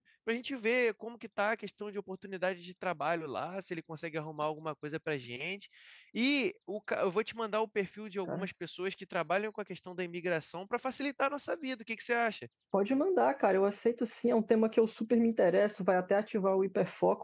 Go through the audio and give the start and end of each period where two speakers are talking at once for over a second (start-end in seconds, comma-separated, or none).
none